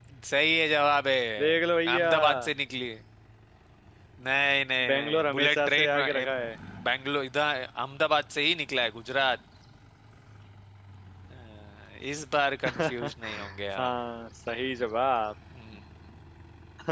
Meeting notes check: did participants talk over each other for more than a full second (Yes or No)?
Yes